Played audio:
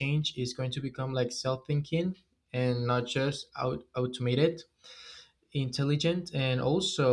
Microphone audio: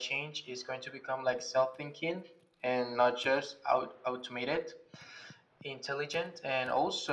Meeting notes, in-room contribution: none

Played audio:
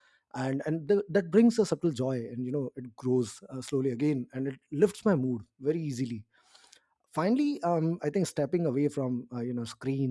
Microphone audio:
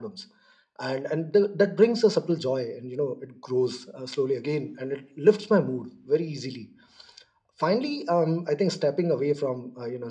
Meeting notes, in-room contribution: none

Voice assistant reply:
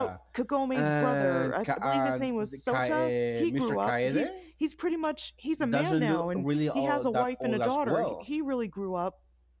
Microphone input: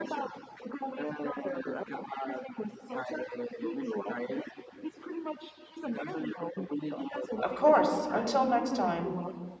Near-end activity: present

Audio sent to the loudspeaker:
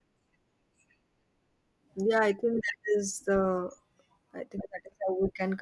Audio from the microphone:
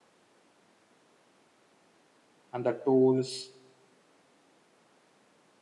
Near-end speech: present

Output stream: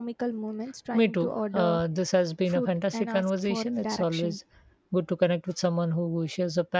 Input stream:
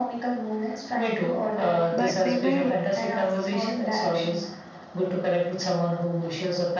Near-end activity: present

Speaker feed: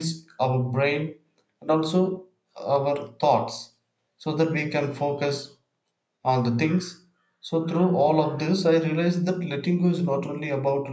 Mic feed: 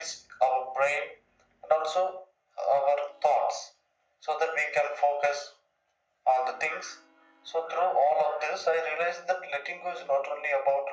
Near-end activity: none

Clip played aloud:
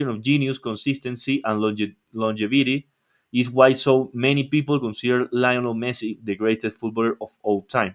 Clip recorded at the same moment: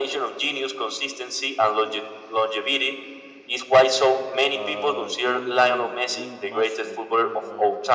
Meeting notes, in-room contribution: present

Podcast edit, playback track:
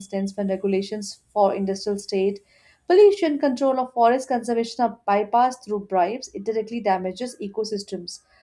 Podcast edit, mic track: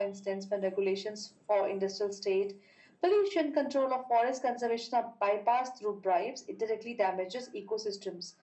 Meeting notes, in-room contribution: none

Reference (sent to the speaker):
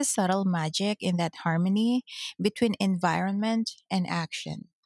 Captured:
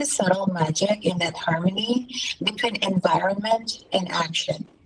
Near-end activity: none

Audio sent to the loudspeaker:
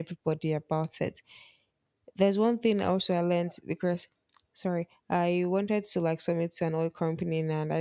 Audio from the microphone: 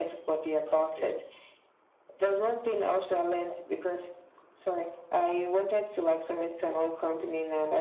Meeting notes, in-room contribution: present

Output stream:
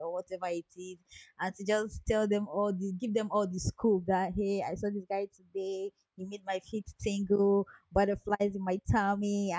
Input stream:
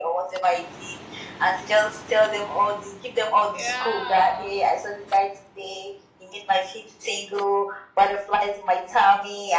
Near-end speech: present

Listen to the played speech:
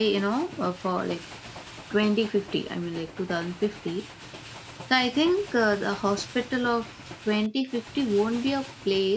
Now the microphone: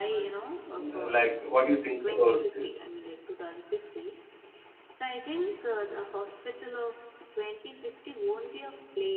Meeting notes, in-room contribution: present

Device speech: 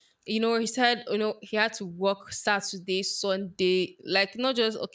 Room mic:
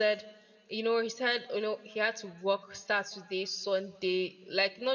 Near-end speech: none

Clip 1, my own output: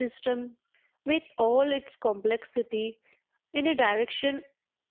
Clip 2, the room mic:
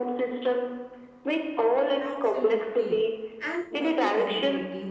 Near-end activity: present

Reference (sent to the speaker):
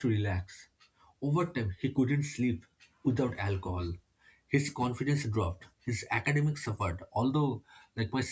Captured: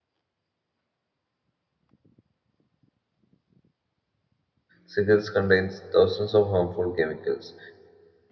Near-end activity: present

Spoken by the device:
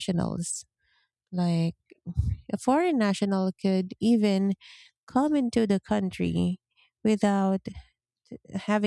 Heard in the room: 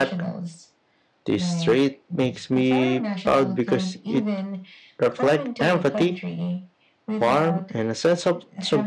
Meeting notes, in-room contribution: present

